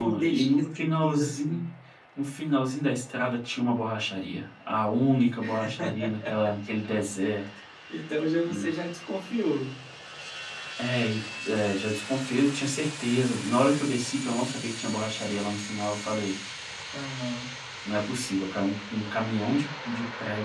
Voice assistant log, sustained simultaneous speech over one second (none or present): present